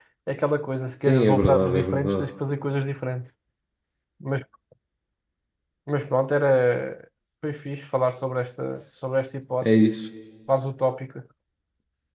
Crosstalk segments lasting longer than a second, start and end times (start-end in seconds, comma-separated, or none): 1.1-2.3